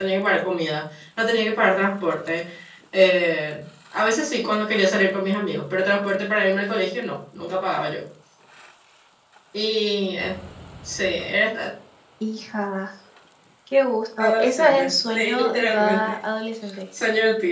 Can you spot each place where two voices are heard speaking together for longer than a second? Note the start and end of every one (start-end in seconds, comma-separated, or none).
14.2-16.1